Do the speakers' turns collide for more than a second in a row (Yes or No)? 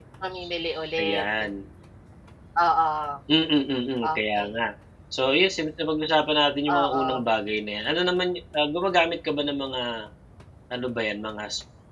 No